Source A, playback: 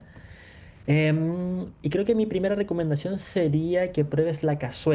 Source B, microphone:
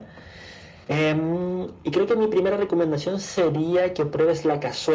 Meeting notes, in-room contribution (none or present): none